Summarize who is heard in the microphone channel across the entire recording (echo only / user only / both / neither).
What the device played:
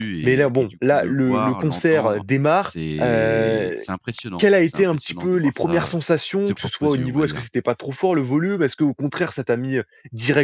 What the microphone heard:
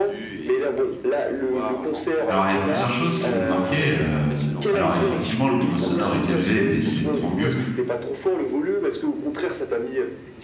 both